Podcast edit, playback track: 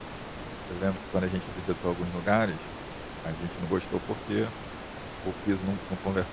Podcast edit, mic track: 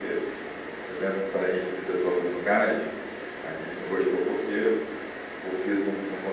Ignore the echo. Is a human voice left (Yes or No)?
No